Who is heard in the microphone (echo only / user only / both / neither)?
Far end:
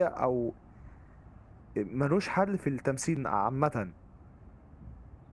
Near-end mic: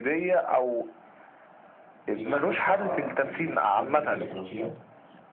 both